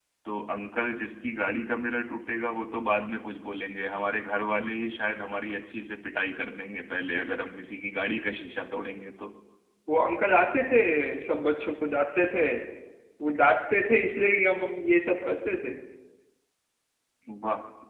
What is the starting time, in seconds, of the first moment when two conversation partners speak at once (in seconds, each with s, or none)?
none